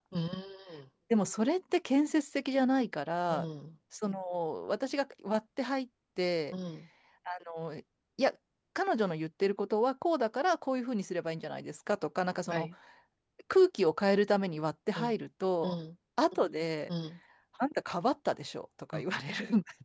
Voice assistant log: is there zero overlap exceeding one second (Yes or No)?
Yes